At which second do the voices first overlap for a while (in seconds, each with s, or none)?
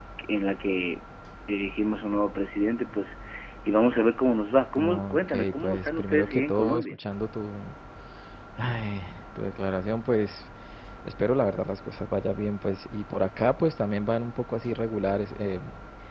4.8 s